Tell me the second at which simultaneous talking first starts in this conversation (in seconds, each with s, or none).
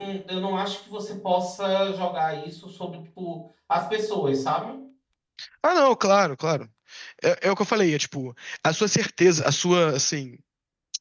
none